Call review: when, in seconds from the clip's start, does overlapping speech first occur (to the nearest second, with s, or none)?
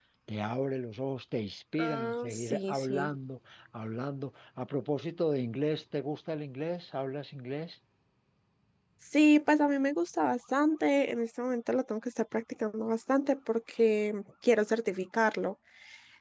2 s